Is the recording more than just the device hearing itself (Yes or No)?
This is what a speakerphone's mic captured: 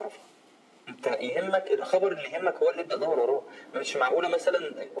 No